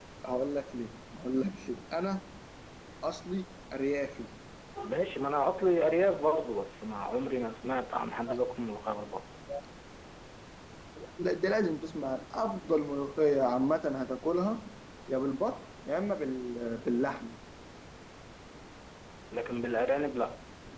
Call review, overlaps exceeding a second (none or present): none